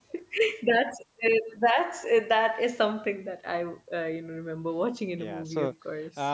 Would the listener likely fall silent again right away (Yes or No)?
No